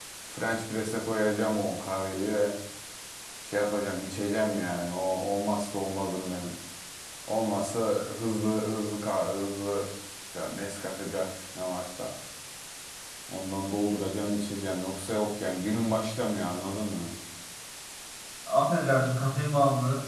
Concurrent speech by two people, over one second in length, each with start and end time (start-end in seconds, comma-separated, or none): none